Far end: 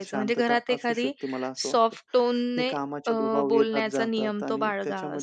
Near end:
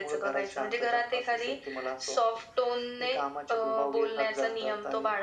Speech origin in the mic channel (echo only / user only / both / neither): echo only